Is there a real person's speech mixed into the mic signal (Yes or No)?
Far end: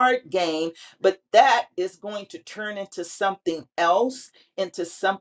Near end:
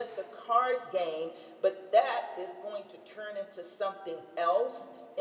No